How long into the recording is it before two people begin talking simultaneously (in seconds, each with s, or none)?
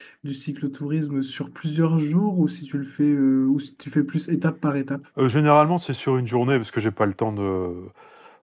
none